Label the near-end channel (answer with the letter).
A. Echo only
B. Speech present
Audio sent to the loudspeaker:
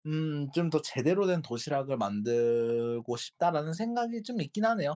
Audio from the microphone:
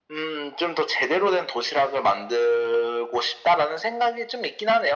A